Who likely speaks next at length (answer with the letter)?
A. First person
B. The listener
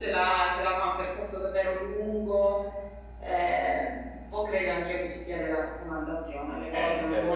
B